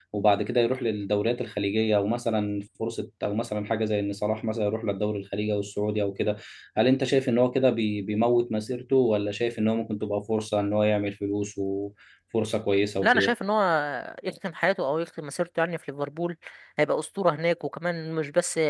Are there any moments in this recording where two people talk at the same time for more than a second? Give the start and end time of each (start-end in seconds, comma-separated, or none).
none